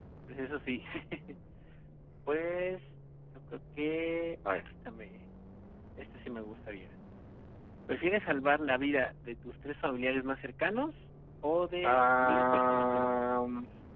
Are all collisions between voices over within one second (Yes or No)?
No